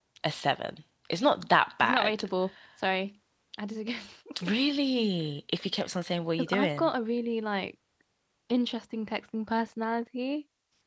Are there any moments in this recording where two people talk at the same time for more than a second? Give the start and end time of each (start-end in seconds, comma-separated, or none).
none